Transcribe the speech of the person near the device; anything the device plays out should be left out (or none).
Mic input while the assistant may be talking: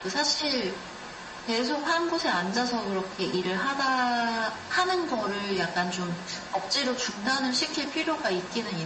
none